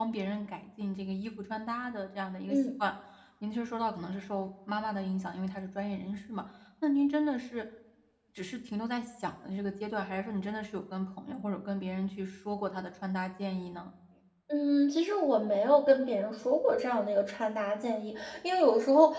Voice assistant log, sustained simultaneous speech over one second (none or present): none